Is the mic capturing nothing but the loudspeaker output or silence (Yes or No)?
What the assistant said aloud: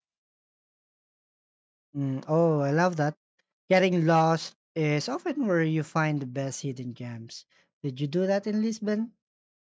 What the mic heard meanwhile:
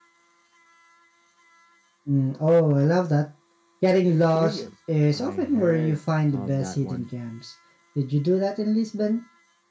No